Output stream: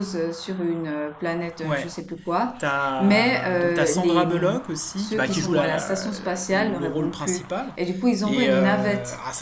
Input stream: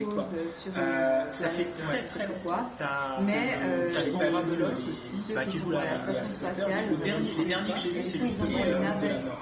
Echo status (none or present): present